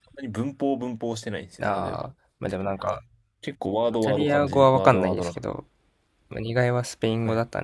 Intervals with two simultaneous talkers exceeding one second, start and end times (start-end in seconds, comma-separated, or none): 4.0-5.4